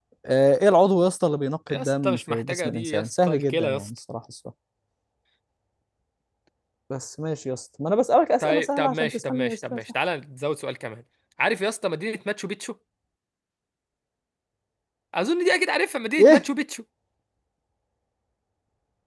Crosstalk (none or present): present